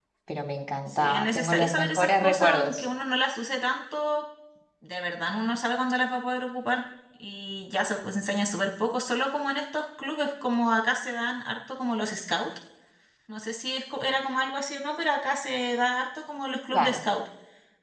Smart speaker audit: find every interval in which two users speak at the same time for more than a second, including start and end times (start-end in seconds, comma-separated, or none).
0.9-2.8